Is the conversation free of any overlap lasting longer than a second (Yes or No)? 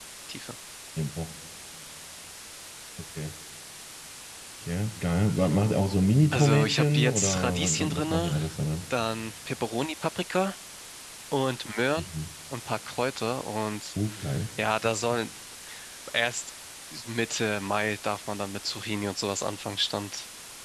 No